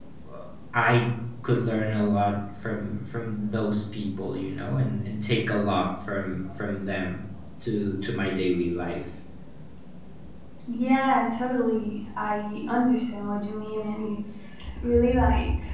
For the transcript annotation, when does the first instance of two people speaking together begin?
none

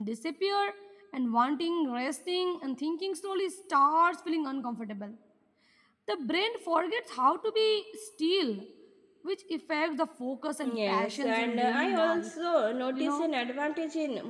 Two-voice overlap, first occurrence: 10.9 s

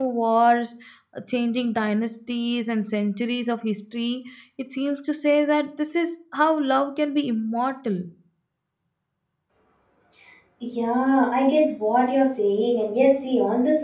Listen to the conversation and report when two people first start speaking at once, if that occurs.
none

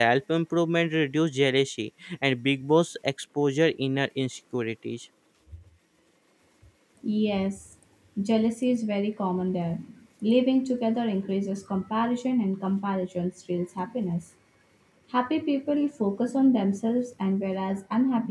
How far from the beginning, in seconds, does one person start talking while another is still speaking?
none

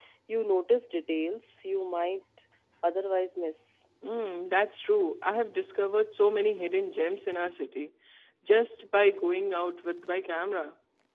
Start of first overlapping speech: none

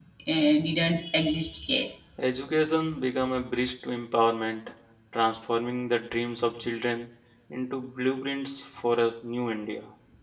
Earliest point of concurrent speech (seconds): none

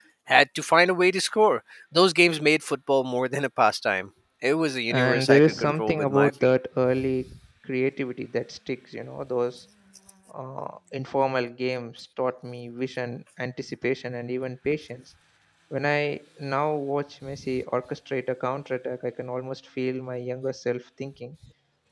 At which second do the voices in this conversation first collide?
4.9 s

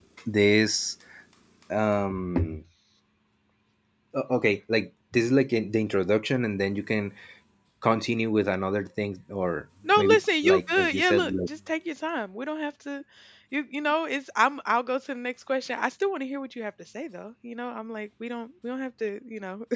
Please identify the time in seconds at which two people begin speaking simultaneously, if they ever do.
9.8 s

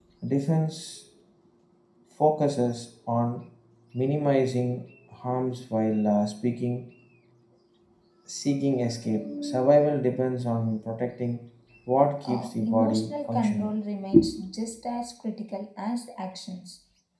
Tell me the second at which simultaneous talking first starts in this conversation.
12.2 s

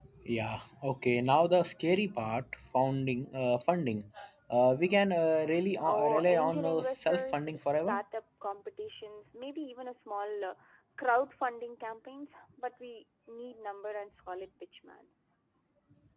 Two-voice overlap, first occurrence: 5.8 s

